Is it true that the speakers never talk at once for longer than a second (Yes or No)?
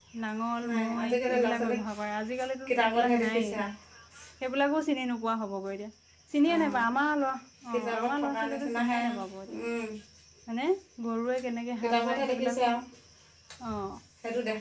No